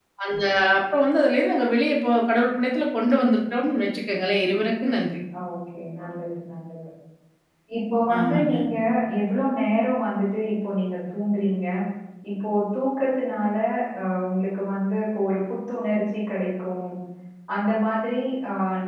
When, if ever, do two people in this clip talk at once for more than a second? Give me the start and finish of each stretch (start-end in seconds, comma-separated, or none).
none